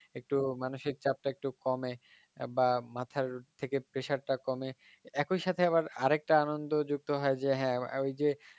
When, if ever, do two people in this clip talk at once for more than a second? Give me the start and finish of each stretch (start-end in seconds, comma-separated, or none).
none